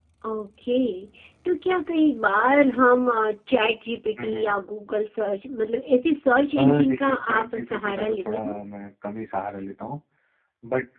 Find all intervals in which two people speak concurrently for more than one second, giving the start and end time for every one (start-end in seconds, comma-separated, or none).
6.6-8.6